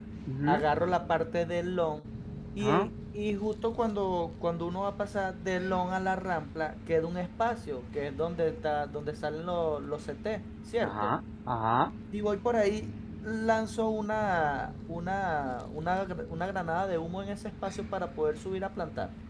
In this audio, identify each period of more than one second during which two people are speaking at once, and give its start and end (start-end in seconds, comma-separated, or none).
none